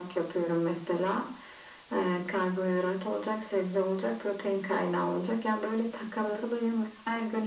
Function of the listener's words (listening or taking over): listening